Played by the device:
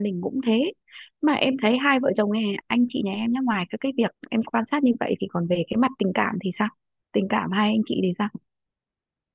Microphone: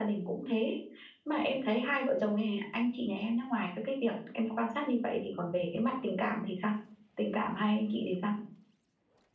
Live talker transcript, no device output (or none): none